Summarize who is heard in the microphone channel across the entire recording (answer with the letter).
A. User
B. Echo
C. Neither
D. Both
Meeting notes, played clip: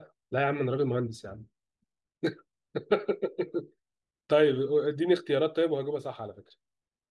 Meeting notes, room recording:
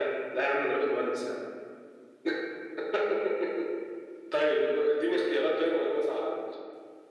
B